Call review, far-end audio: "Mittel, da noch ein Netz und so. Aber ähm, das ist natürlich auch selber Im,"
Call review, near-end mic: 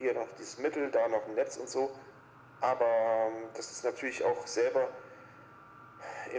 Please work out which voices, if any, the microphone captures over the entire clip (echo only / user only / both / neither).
echo only